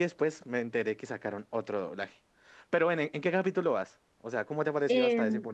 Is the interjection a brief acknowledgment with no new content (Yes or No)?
No